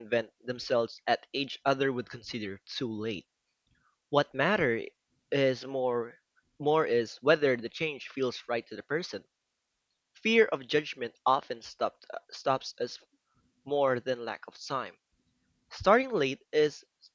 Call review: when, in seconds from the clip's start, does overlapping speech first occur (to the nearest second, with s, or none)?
none